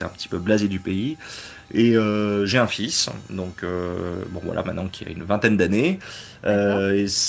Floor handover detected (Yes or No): No